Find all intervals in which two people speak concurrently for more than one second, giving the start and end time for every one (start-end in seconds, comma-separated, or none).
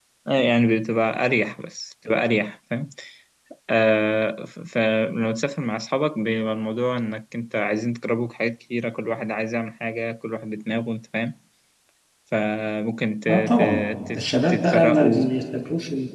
13.3-15.3